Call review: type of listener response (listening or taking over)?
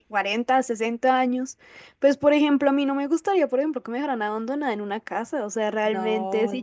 listening